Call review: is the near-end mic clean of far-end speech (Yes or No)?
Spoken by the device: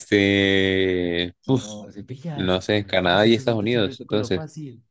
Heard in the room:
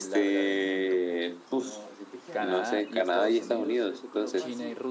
No